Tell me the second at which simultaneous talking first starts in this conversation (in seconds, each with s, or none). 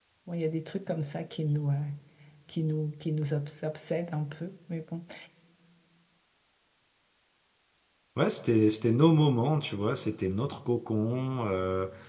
none